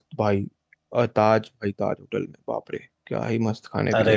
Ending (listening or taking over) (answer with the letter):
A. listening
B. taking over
B